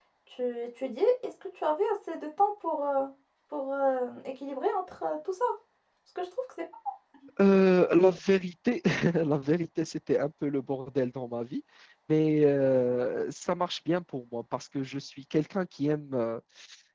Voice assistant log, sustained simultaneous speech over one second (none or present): none